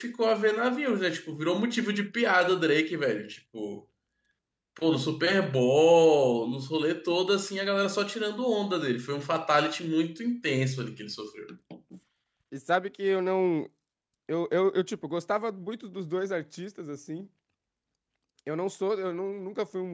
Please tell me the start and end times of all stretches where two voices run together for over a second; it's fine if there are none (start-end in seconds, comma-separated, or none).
none